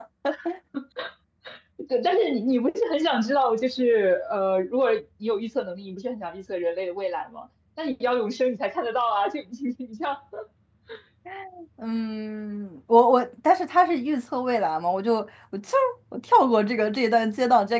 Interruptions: none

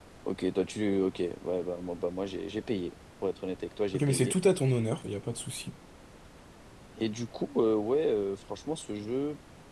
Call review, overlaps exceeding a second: none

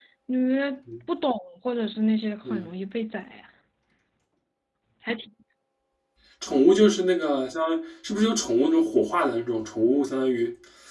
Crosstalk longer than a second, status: none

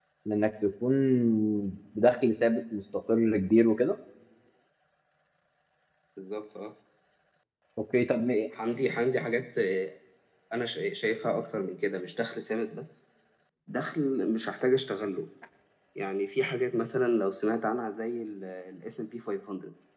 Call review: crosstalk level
none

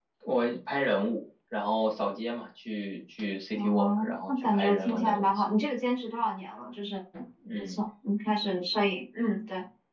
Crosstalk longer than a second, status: present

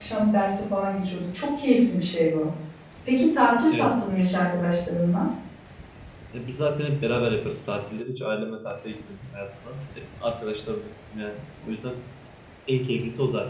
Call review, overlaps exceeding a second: none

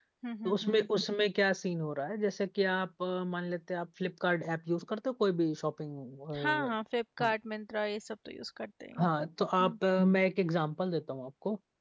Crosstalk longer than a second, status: none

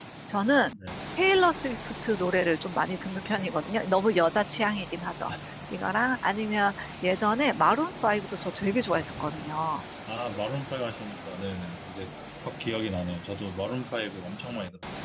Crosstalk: none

